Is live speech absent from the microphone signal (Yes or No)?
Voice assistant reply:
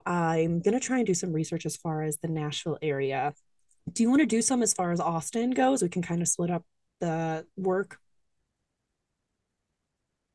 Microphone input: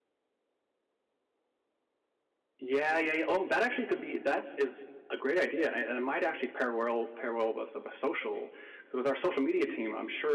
No